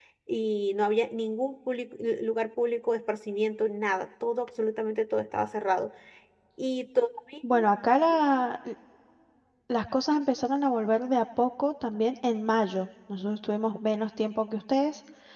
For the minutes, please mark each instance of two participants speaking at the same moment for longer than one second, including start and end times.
none

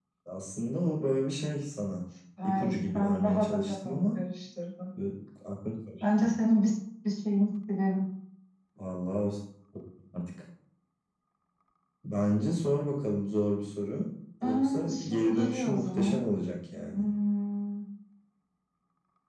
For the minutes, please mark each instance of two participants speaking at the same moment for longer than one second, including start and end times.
2.4-4.2, 14.4-16.2

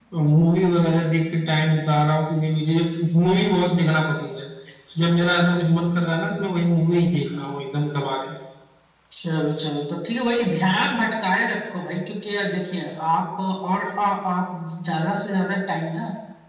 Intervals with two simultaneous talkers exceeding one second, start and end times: none

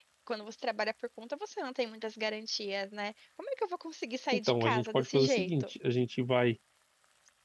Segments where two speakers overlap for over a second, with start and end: 4.3-5.7

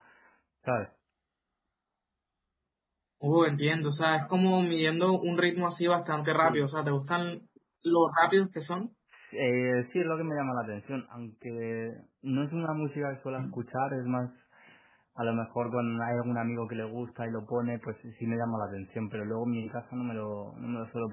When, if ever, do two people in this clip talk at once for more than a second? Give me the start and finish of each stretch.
none

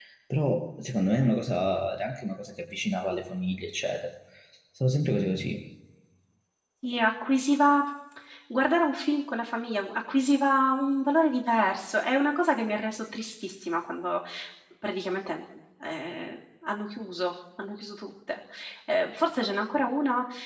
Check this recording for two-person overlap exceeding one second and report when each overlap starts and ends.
none

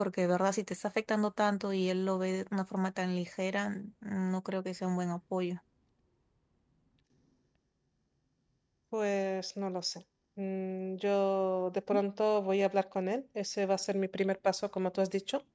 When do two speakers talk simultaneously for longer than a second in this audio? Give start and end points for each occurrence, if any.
none

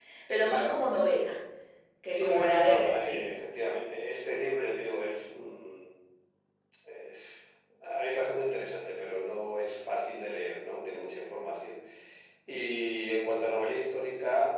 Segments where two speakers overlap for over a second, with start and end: 2.0-3.3

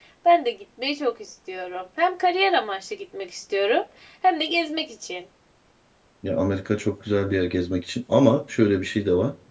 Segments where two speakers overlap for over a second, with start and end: none

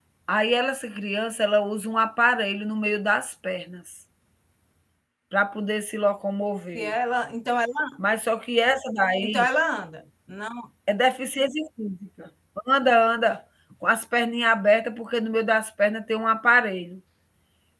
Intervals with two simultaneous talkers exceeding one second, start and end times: none

